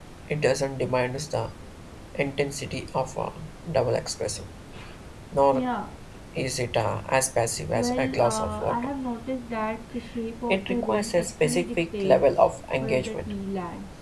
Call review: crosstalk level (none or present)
present